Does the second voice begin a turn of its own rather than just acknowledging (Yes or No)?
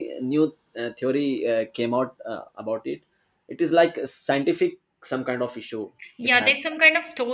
Yes